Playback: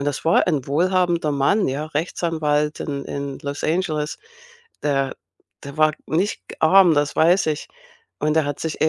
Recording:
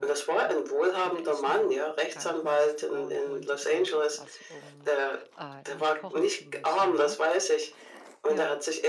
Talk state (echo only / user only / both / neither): both